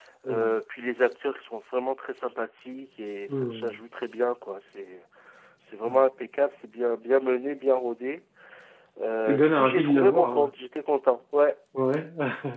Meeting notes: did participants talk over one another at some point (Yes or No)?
Yes